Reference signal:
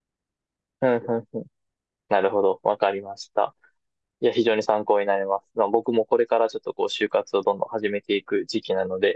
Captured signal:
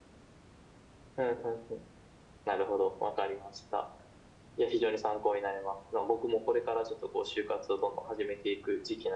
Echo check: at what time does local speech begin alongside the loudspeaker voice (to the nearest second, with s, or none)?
none